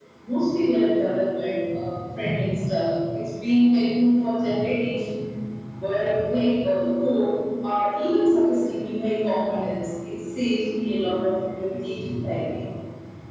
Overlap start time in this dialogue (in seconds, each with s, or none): none